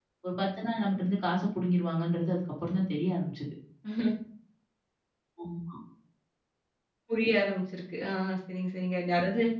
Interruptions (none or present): none